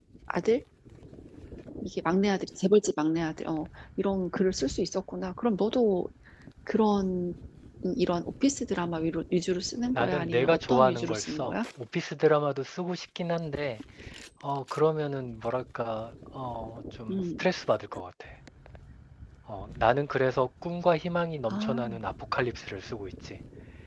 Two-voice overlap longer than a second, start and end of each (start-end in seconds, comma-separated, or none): 9.9-11.6